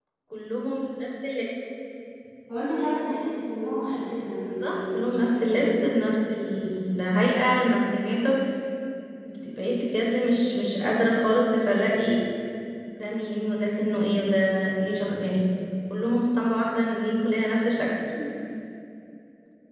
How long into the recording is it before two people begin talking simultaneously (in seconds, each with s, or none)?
4.5 s